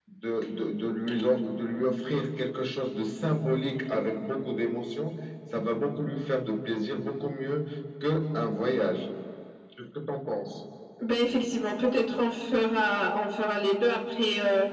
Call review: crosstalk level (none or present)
none